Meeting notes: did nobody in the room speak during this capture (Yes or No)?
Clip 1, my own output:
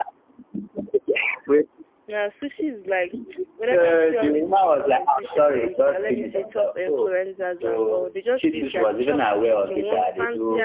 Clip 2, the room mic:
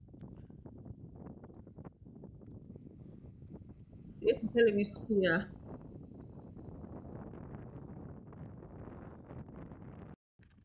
No